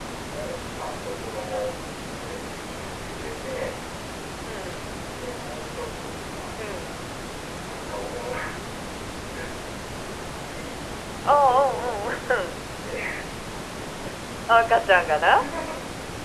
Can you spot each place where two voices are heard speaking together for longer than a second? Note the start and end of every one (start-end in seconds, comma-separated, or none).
11.2-12.5